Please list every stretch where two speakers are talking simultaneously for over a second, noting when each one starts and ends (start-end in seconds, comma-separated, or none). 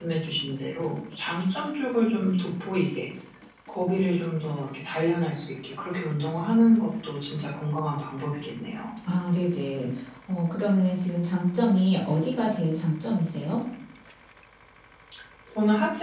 none